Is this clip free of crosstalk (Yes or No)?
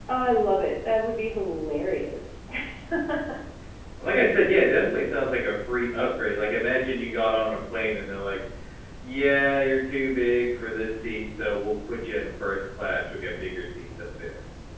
Yes